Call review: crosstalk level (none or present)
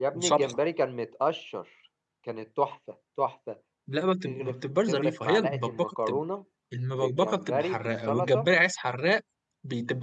present